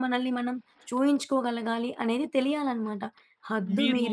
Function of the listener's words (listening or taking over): listening